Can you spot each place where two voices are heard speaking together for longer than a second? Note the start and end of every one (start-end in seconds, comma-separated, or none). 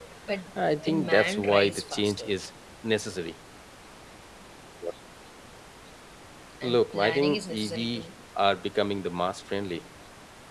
0.8-2.3, 6.6-8.0